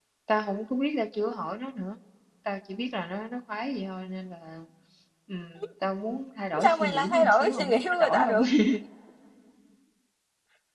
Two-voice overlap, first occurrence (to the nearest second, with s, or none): 7 s